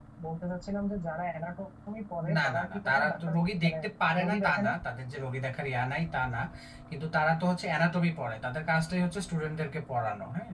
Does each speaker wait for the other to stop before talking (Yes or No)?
No